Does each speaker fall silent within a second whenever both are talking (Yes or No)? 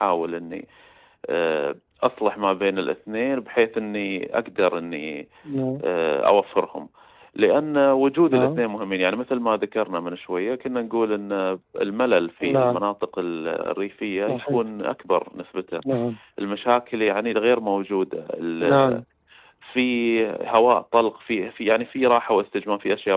Yes